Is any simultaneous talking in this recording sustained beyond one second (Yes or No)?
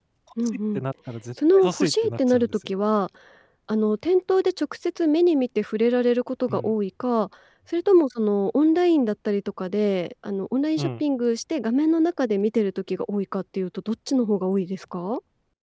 Yes